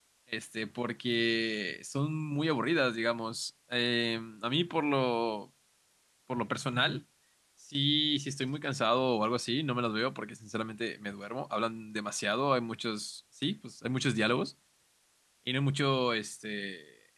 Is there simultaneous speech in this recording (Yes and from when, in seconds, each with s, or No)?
No